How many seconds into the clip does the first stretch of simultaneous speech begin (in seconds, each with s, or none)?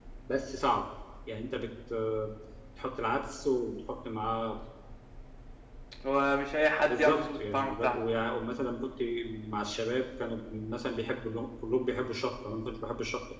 6.9 s